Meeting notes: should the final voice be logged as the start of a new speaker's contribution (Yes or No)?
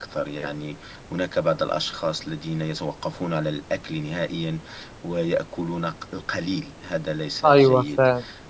Yes